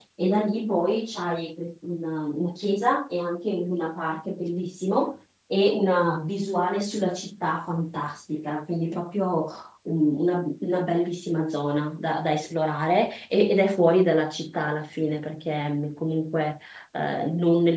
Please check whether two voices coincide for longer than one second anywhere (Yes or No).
No